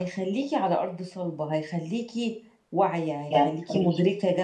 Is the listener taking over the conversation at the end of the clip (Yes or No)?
No